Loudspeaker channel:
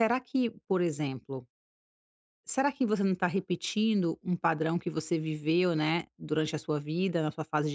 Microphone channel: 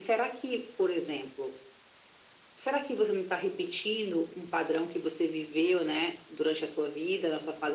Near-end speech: none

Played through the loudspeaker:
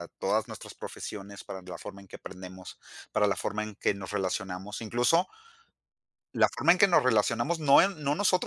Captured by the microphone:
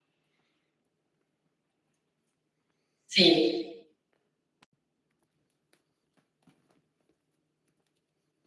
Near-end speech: present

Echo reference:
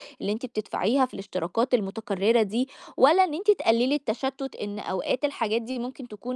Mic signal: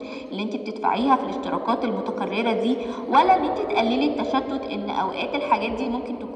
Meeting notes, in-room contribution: none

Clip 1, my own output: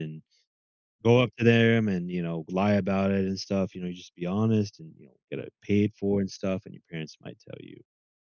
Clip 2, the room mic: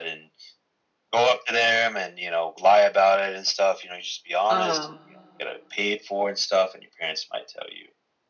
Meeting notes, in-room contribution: present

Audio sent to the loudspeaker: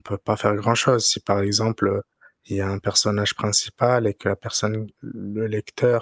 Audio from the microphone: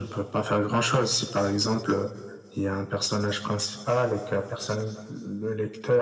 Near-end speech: none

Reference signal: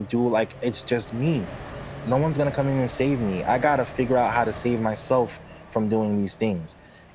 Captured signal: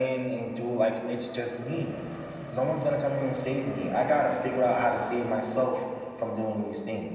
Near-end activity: none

